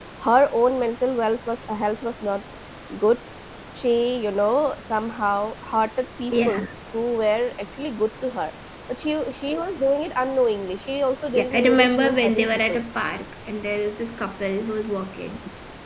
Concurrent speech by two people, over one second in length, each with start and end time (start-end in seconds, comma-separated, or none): 11.3-12.8